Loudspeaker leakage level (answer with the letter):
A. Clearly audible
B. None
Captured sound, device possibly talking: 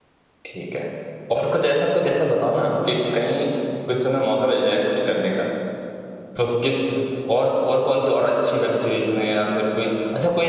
B